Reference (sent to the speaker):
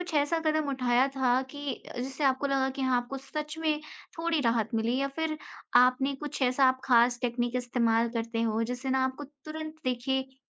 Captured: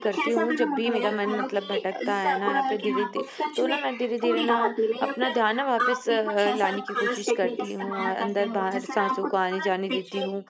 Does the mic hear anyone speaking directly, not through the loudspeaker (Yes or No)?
Yes